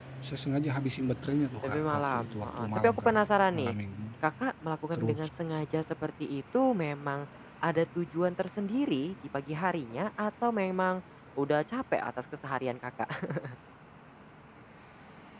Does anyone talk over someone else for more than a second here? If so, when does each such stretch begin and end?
1.6-3.2

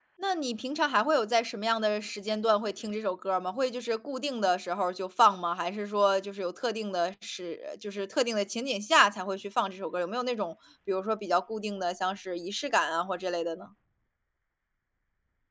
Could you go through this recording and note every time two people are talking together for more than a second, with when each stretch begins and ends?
none

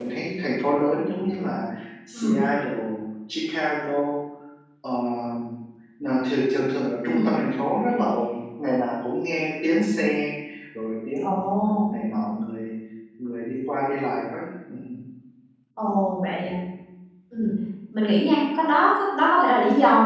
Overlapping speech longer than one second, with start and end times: none

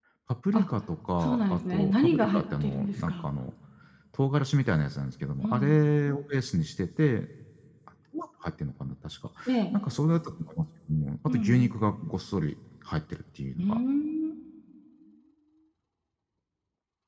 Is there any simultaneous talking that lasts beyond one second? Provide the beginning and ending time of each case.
1.2-3.2

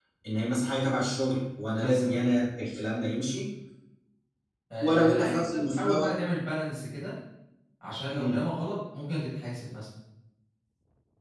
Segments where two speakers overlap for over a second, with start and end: 4.8-6.2

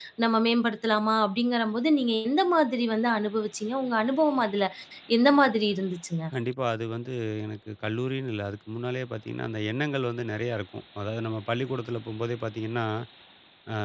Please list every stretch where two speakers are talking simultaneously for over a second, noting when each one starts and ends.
none

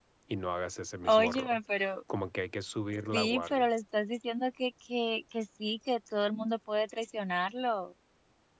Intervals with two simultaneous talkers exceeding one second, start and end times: none

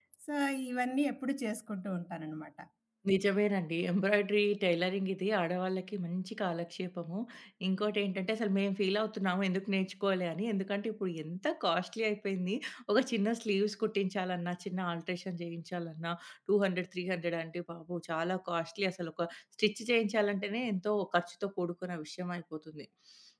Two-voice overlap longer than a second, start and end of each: none

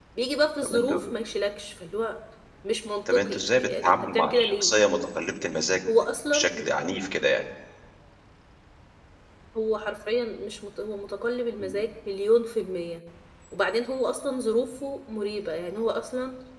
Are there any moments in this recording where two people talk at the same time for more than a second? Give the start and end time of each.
3.1-4.7

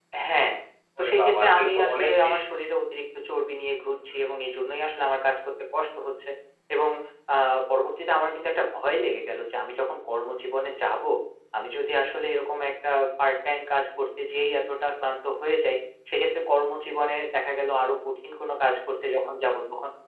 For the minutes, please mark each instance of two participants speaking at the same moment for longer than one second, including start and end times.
1.0-2.4

